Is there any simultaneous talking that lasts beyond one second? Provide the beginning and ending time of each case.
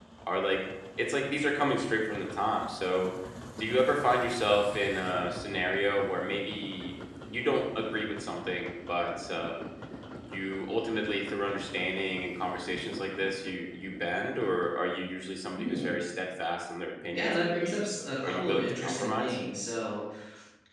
17.1-19.4

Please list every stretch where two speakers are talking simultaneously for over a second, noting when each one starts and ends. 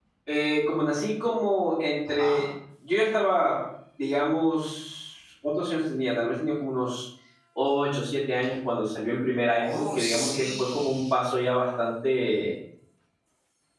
9.6-11.1

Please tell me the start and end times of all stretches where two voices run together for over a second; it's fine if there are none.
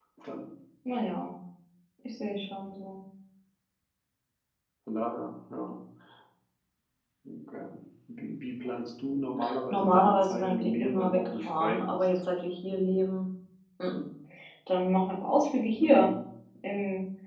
9.7-12.0

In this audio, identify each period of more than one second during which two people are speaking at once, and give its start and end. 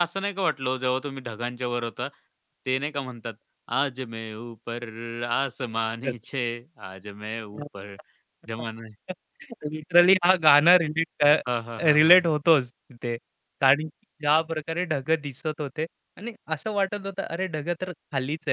none

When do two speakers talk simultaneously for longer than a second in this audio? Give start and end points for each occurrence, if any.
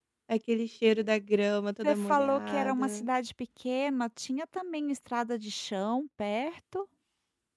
1.8-3.1

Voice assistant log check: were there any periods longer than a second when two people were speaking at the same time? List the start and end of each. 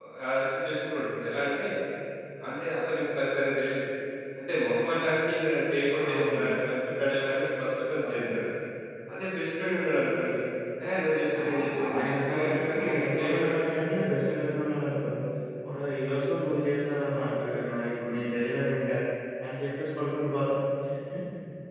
11.3-14.1

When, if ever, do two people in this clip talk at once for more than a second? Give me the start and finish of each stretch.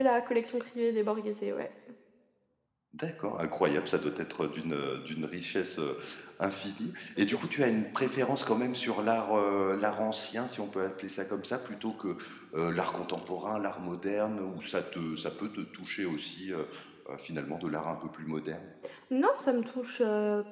none

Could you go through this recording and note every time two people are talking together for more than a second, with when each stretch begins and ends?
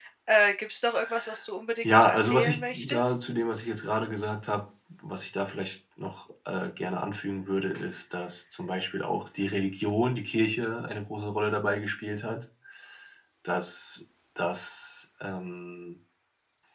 1.8-3.3

